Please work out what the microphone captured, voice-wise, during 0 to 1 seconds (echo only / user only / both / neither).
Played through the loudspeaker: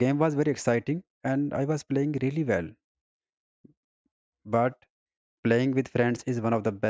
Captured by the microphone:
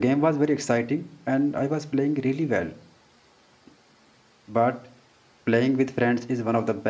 echo only